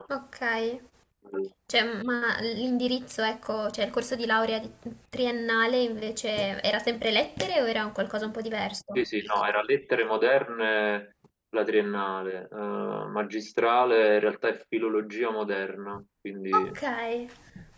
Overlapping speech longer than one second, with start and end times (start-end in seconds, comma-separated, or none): none